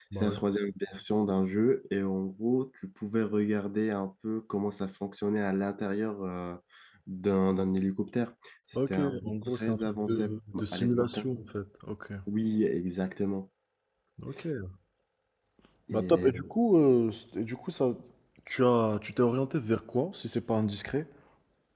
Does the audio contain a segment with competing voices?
Yes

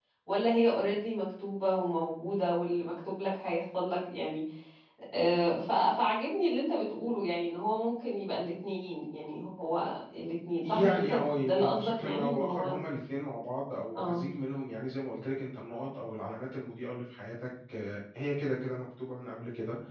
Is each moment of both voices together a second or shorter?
No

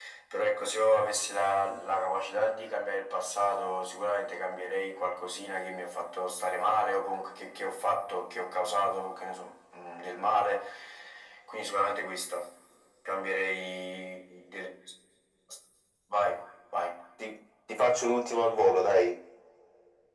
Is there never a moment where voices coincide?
Yes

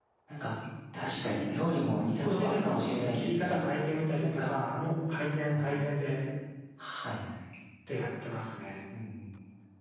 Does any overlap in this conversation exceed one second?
Yes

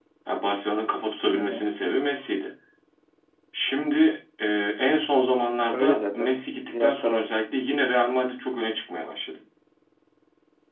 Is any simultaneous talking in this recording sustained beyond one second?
Yes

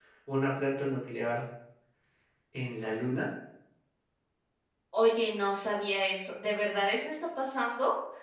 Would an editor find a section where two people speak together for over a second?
No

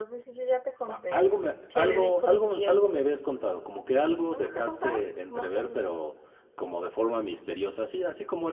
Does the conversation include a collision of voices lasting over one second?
Yes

